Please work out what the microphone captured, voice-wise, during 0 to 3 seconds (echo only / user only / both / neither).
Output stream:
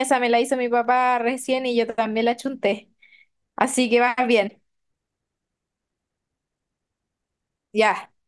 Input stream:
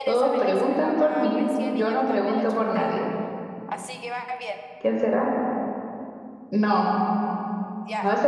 both